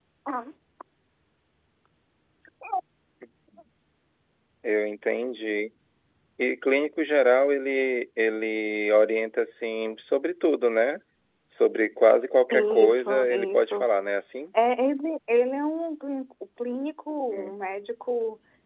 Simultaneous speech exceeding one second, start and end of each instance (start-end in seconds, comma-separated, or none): 12.5-13.9